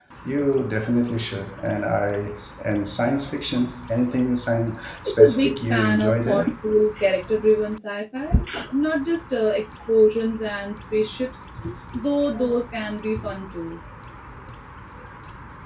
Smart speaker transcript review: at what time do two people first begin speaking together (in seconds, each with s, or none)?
5.1 s